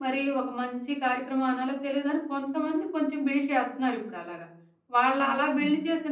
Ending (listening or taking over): listening